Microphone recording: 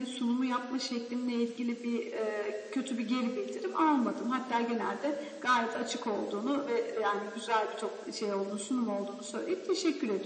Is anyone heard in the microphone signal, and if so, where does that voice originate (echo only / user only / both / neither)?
echo only